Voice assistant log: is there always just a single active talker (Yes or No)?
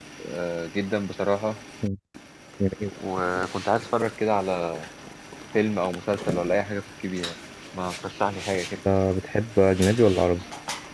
Yes